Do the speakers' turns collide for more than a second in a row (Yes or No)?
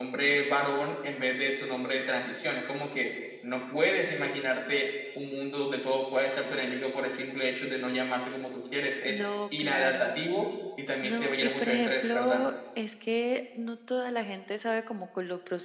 Yes